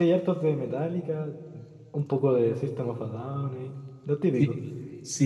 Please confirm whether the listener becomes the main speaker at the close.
Yes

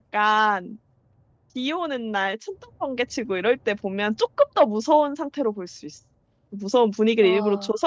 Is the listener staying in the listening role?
Yes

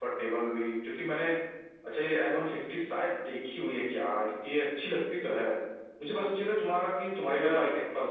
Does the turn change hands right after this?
No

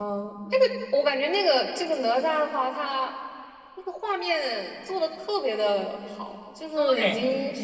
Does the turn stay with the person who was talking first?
Yes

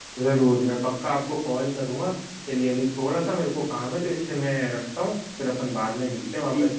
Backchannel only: No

